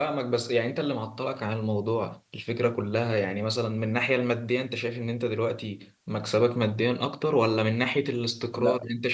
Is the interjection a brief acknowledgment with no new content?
Yes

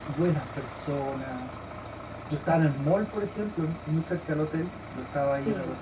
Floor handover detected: No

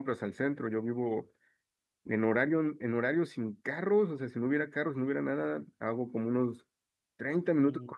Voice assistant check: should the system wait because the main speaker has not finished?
Yes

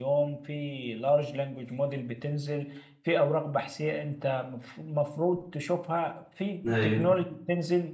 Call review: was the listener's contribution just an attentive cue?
Yes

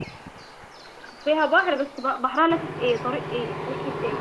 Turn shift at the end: Yes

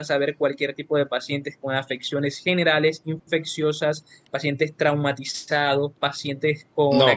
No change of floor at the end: Yes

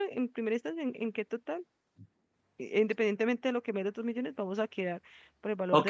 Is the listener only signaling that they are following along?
No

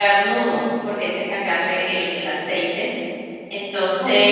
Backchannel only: No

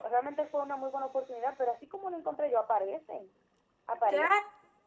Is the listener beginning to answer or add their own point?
Yes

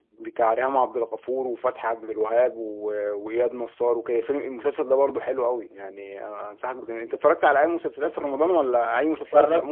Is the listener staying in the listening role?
No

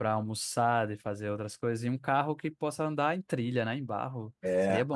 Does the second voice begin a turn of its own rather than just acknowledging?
Yes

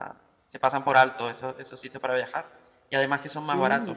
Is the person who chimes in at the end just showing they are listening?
Yes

